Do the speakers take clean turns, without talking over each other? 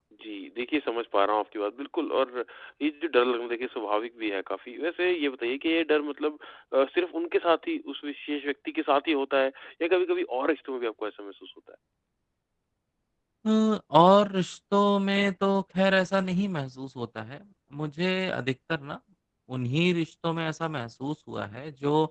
Yes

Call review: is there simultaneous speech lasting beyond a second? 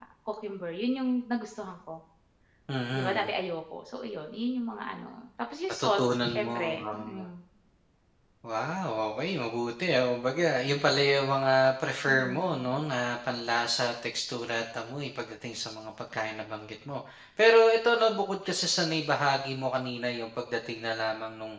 Yes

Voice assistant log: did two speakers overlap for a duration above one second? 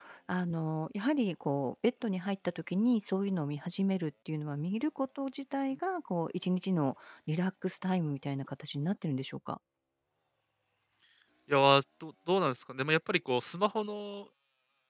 No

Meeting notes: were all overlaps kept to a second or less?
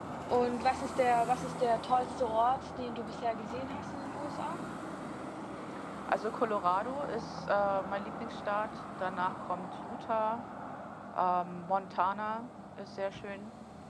Yes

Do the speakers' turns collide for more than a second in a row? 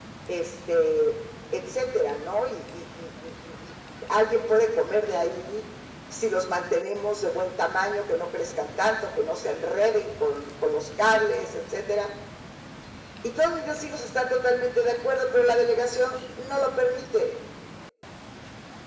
No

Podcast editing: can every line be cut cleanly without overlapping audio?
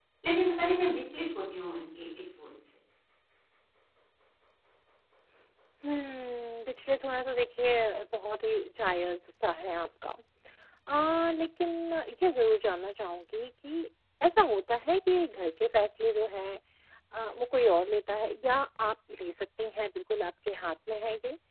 Yes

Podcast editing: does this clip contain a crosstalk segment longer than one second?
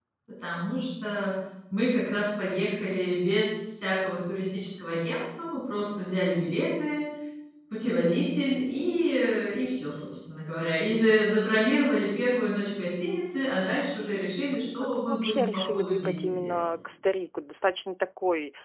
Yes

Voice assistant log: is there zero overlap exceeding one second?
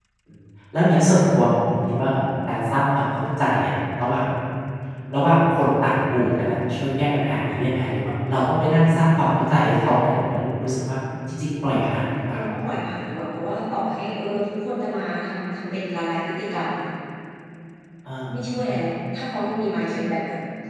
Yes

